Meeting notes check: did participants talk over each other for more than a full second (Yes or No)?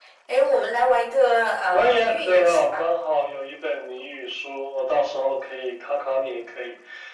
Yes